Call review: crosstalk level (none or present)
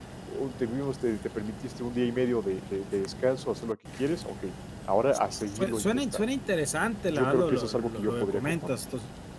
present